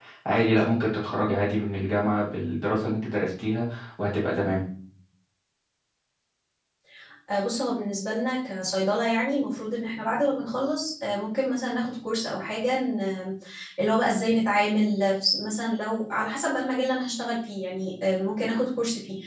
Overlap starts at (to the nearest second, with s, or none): none